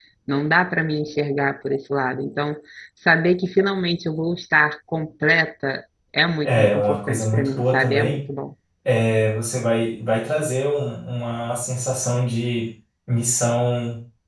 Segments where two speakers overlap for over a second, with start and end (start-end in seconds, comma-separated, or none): 6.4-8.2